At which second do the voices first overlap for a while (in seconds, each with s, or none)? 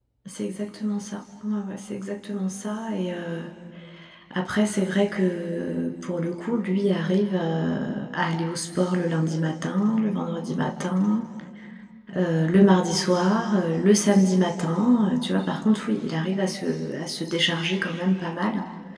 none